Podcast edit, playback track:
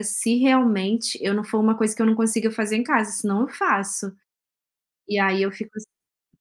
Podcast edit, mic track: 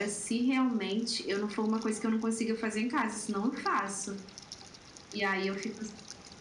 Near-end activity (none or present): none